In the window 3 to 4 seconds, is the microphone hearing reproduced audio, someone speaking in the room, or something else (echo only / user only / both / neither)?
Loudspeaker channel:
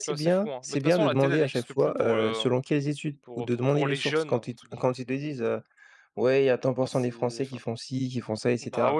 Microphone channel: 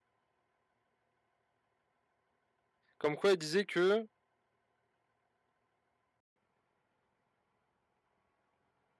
user only